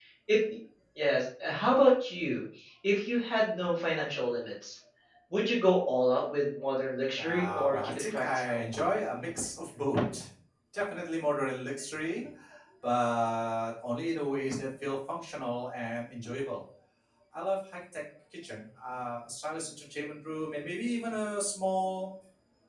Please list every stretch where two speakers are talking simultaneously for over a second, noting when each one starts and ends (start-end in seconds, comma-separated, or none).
7.2-8.6